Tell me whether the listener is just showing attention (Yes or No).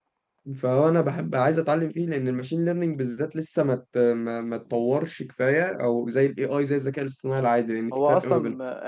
No